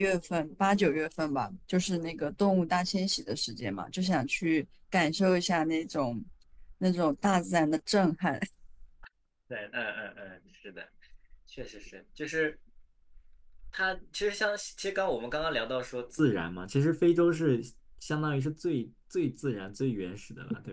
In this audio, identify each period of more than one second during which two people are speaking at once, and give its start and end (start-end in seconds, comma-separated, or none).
none